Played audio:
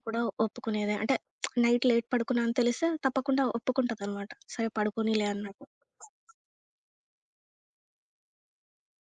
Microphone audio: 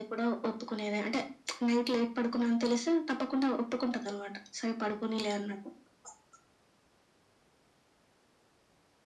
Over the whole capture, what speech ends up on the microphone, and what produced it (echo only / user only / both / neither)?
echo only